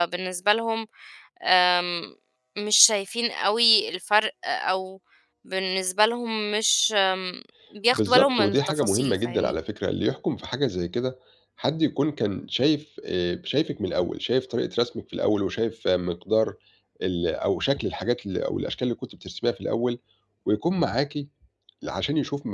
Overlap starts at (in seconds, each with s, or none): 7.9 s